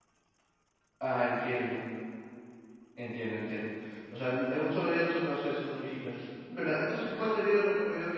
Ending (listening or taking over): listening